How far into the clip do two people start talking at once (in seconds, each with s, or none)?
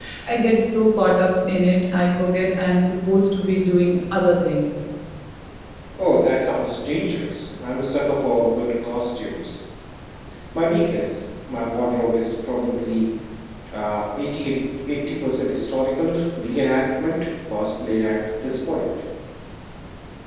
none